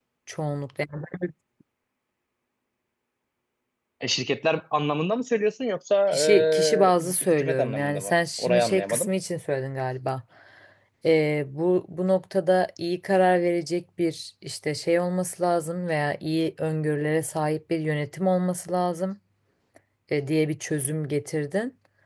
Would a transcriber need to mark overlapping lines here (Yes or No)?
Yes